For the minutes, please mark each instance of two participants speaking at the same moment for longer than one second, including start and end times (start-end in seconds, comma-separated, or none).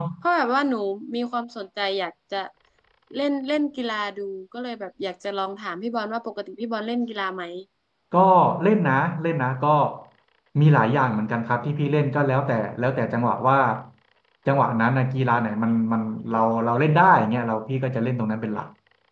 none